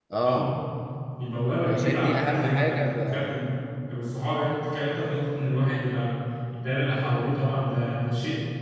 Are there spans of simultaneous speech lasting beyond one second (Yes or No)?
Yes